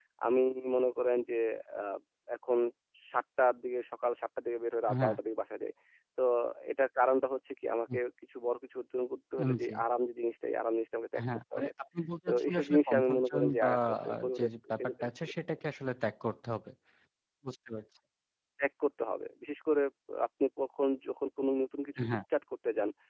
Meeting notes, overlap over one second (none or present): present